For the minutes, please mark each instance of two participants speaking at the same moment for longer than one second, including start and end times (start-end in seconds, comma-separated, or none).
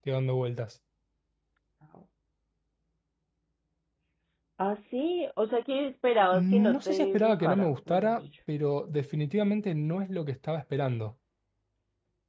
6.3-8.2